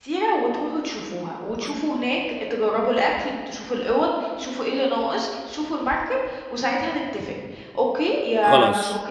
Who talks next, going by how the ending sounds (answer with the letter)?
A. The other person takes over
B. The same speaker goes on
B